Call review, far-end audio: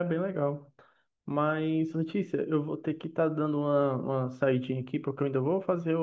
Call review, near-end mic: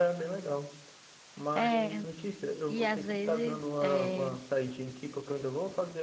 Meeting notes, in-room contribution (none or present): present